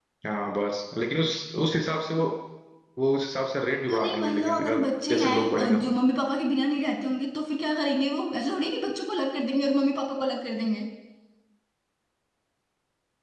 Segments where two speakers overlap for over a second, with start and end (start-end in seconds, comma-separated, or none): 3.9-5.8